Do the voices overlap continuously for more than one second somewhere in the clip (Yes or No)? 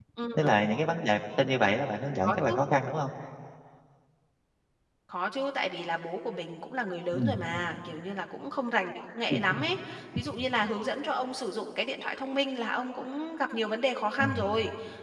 No